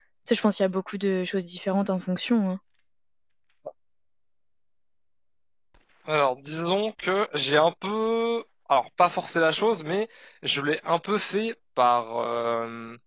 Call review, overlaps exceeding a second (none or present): none